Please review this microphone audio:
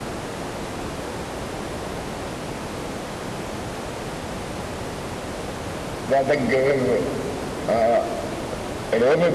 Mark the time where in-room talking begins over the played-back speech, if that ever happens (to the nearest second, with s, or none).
6 s